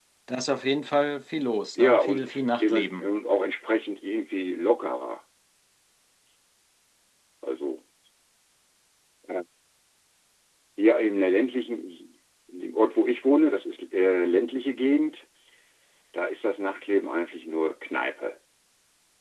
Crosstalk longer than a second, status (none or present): present